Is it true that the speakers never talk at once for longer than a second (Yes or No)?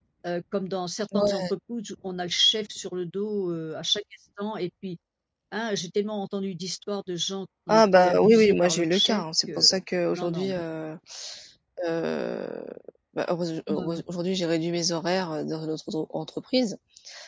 No